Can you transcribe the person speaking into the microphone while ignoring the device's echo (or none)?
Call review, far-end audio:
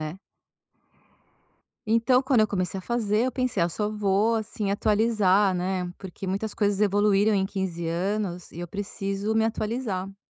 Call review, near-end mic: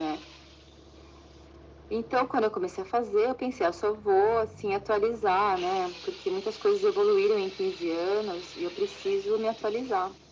none